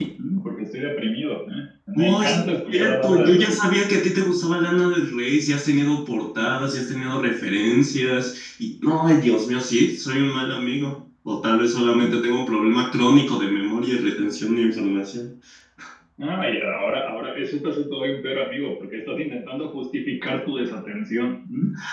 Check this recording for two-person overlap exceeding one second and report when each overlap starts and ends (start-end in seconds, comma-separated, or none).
1.9-3.5